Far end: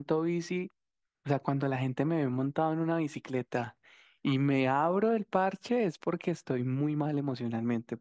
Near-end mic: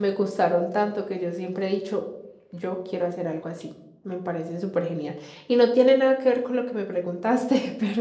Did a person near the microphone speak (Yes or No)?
Yes